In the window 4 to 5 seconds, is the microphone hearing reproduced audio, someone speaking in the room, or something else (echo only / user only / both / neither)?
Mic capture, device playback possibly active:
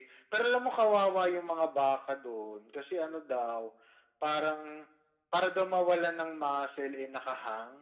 echo only